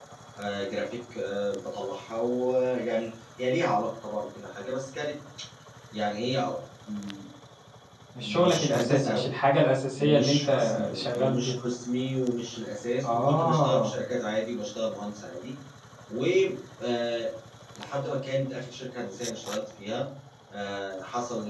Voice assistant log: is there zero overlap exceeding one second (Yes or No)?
No